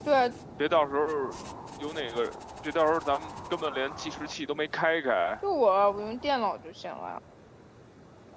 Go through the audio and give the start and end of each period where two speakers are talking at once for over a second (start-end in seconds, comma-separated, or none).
none